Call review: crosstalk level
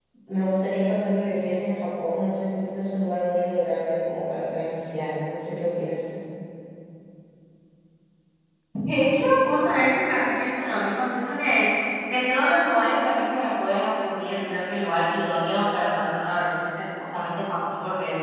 none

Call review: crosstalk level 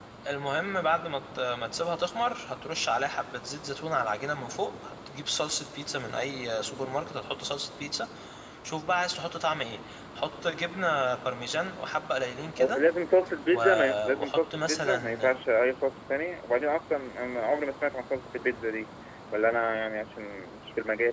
present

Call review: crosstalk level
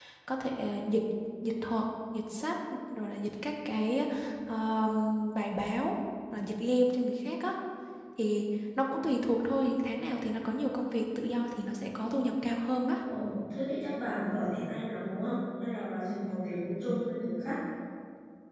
none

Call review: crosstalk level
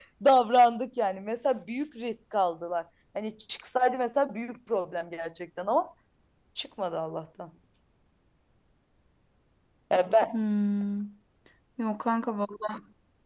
none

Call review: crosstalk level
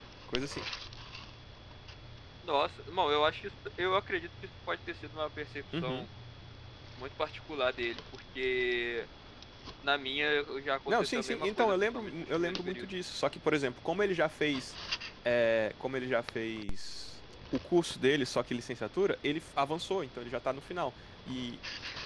present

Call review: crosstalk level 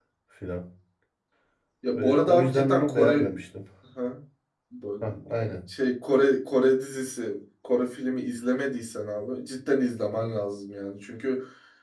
present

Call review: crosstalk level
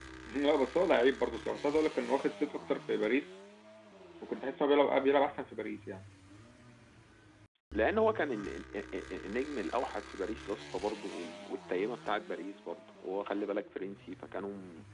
none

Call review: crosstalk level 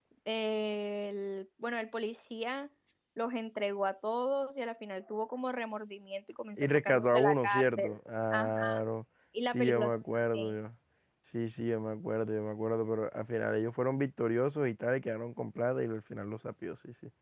present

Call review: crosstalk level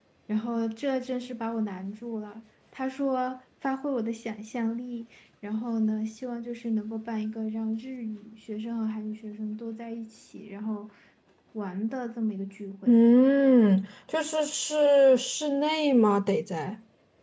none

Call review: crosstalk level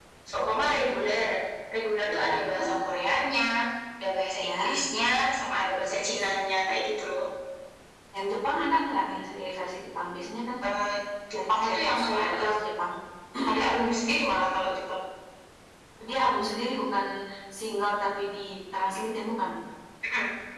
present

